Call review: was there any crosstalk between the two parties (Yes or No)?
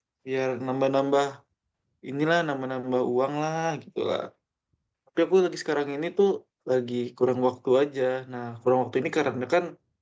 No